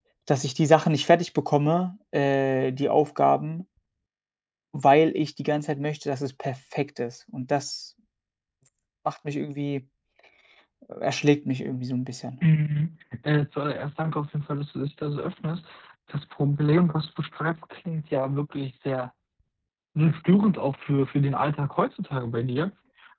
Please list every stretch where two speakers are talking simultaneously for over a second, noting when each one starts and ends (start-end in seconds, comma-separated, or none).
none